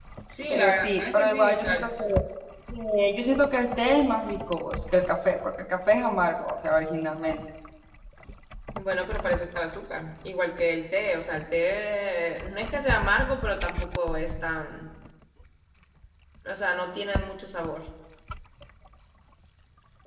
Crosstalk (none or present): present